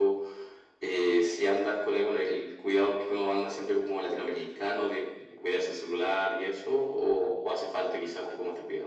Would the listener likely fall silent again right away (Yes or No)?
No